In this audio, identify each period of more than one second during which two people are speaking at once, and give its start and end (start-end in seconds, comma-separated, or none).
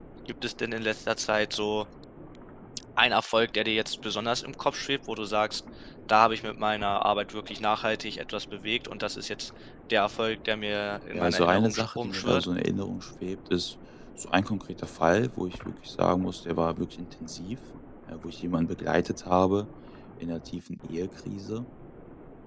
11.1-12.4